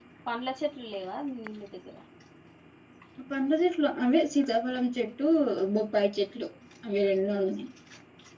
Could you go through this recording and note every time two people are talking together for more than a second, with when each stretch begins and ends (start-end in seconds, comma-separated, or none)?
none